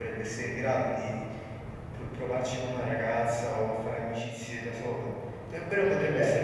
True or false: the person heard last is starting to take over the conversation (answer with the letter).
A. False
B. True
A